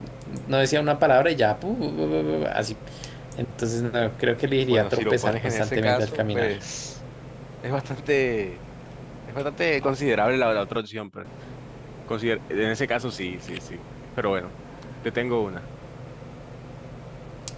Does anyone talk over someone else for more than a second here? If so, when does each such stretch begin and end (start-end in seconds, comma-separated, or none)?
4.7-6.5